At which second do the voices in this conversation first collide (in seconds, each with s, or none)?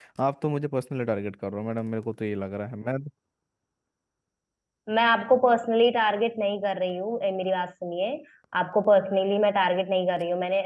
none